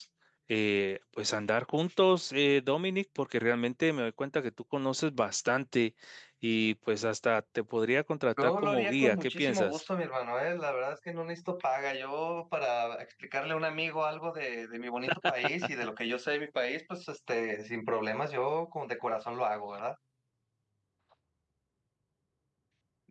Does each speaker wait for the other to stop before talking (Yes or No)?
No